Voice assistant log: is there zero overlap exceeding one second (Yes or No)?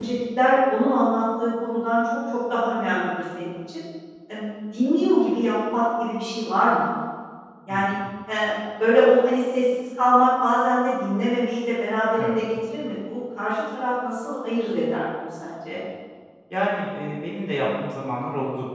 Yes